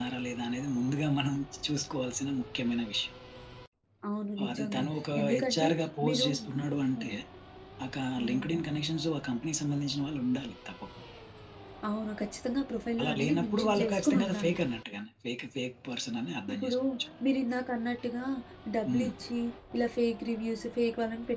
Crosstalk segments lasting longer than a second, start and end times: 13.0-14.6

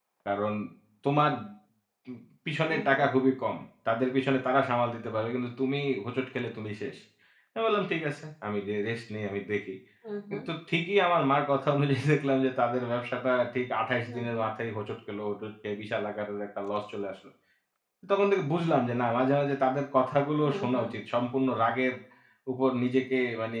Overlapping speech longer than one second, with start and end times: none

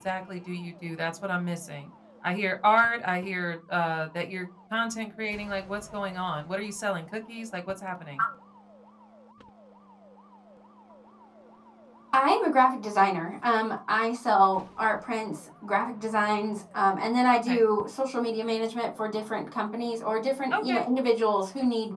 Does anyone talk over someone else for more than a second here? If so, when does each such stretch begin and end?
none

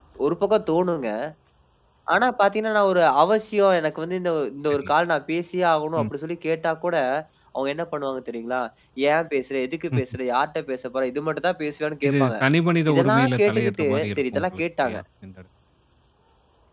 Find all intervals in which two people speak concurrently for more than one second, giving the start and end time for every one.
12.9-15.0

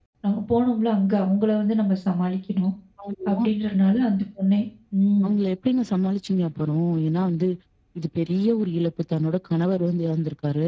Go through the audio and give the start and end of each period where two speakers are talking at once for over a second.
none

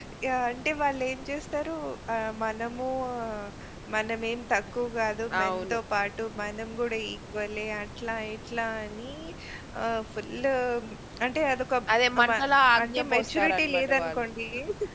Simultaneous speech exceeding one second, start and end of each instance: 12.8-14.3

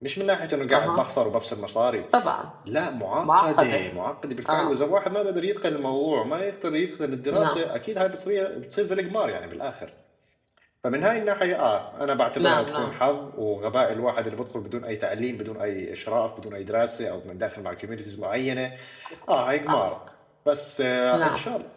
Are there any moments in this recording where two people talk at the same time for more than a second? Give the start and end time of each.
none

